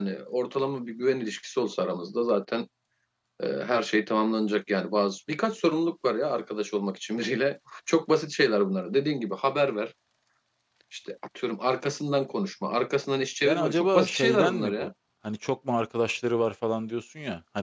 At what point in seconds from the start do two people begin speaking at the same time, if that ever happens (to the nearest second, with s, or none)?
13 s